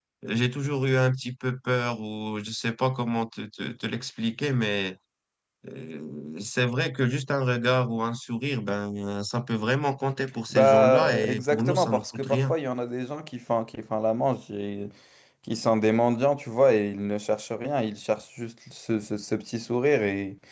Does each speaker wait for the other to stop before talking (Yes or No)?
No